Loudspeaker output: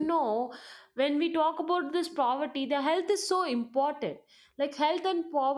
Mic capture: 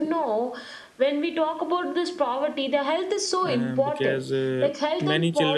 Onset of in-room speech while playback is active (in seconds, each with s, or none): 3.4 s